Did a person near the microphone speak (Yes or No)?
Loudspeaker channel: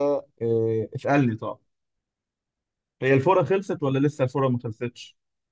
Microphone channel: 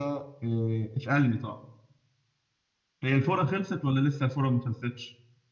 No